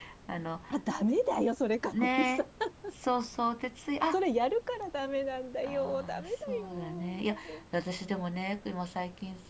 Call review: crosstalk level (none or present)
present